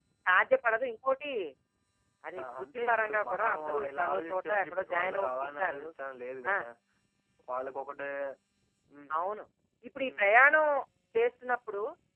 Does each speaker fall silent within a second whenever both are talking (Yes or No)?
No